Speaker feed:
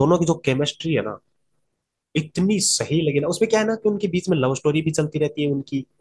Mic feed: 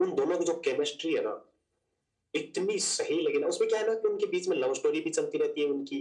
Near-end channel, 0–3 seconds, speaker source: echo only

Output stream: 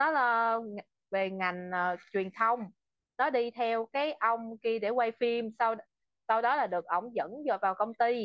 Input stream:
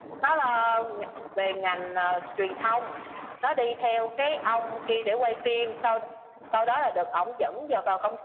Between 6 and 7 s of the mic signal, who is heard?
echo only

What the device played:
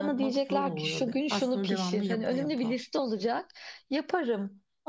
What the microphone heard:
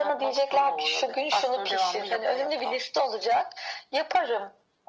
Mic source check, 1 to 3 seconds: echo only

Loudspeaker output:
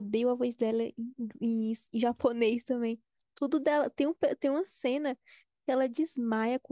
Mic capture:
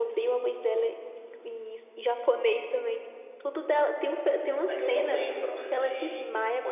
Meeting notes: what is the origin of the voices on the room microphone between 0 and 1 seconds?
echo only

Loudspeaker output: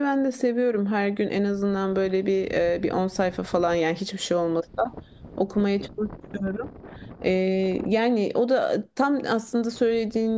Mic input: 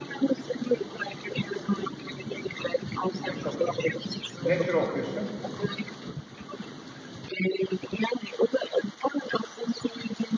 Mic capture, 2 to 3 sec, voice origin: echo only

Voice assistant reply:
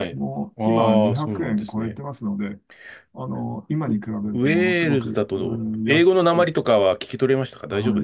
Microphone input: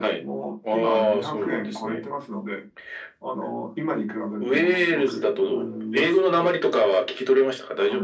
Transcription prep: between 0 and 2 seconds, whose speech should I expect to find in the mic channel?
echo only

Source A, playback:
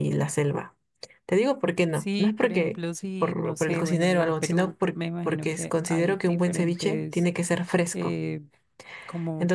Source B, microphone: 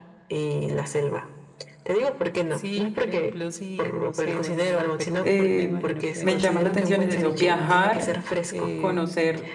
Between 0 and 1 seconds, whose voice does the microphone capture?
echo only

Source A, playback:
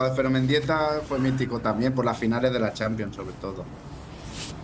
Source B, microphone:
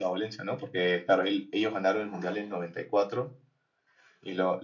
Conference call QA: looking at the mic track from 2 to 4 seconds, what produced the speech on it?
user only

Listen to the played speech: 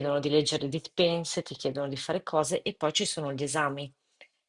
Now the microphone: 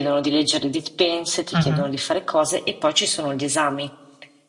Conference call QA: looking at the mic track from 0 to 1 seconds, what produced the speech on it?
echo only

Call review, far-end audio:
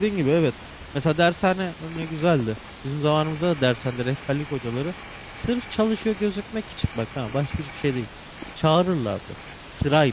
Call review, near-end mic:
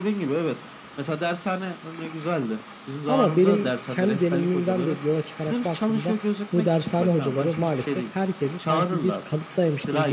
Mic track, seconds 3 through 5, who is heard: both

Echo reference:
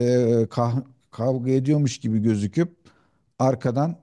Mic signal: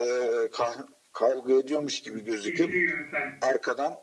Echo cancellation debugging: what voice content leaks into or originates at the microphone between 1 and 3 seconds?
both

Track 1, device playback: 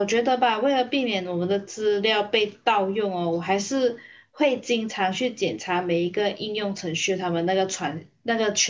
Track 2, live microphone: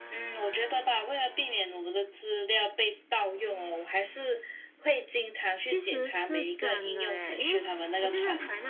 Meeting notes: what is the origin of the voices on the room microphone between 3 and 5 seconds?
echo only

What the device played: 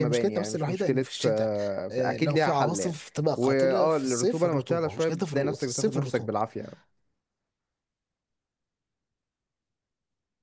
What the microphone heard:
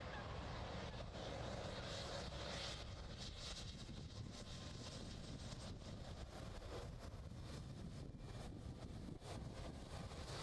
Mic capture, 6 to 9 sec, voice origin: neither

